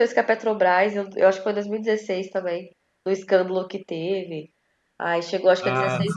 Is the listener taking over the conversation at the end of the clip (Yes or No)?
No